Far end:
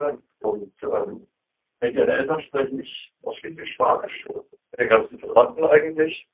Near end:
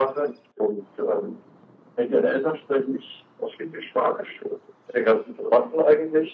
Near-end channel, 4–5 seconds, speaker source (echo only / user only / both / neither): echo only